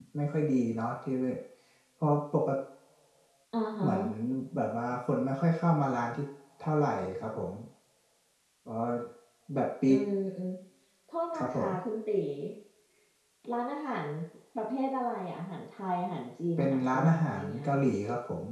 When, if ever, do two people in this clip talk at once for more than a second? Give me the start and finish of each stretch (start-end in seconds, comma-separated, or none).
16.6-17.8